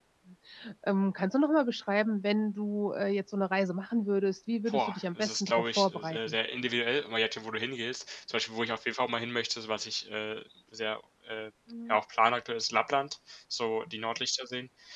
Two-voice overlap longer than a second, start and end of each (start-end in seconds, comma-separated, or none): 4.7-6.3